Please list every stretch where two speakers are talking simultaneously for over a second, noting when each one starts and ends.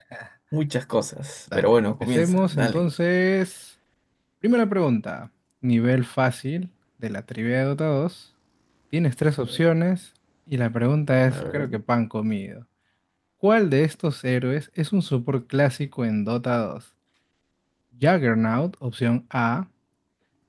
1.5-2.9

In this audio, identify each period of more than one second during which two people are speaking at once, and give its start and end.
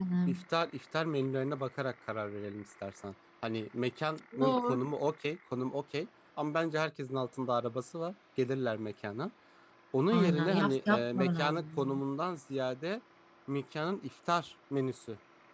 10.1-11.8

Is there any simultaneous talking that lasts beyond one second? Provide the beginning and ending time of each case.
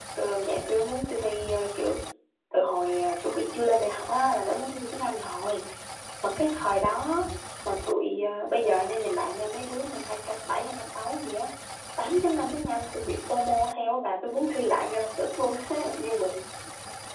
none

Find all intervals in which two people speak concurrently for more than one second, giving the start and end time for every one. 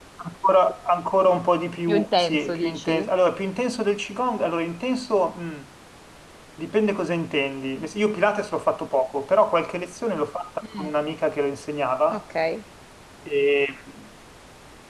1.9-3.1

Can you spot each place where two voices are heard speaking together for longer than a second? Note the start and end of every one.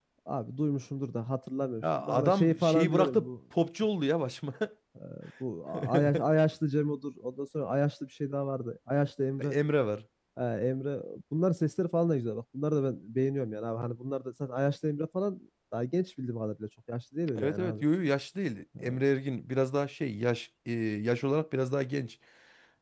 1.8-3.3

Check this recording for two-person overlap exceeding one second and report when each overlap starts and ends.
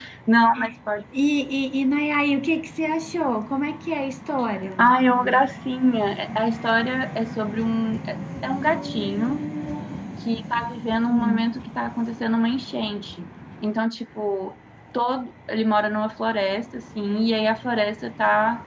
none

